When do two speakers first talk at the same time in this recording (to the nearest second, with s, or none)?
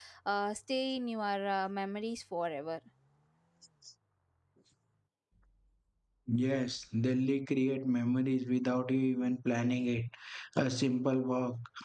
none